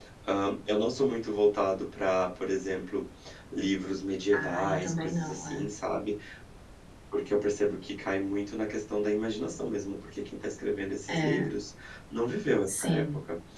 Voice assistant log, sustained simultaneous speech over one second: present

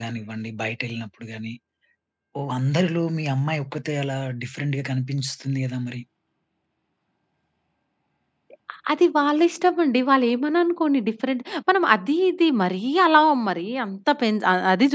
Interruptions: none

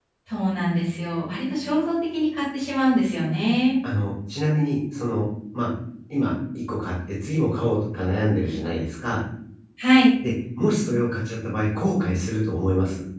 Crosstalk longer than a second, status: none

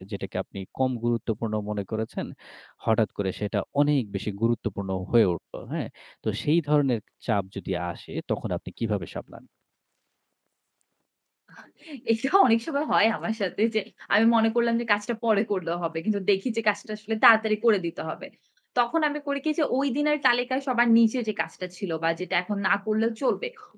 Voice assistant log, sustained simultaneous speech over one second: none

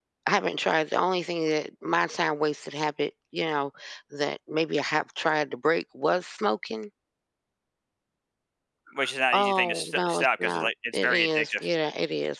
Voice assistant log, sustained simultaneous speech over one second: present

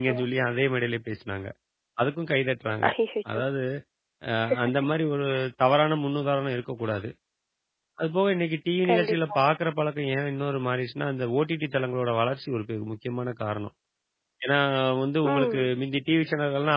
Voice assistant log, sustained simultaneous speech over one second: none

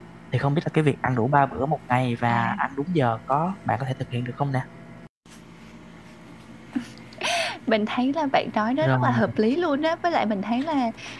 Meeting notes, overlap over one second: none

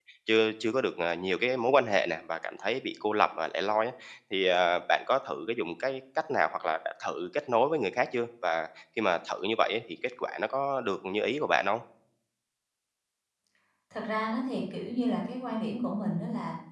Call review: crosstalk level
none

